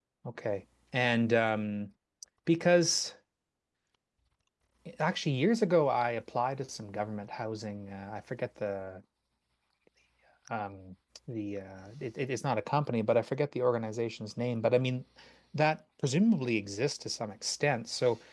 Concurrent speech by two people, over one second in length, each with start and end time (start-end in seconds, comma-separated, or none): none